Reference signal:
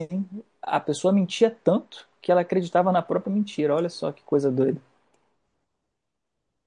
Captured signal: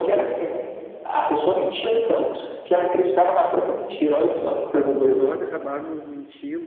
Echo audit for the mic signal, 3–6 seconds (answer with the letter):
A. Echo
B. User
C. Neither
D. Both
D